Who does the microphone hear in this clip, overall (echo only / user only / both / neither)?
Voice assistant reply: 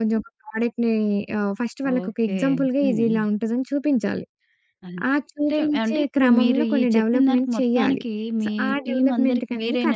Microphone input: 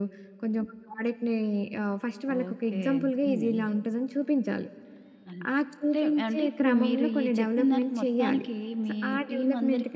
echo only